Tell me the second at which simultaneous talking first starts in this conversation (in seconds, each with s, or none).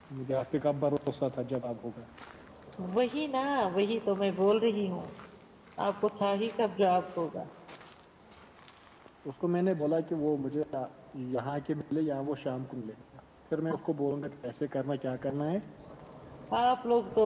none